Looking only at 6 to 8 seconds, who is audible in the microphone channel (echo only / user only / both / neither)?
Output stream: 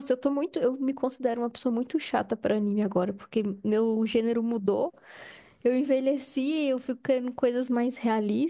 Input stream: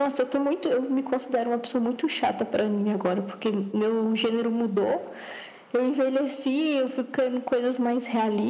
echo only